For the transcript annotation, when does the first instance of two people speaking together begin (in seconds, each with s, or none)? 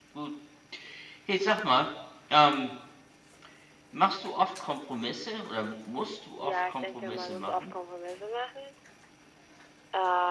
6.4 s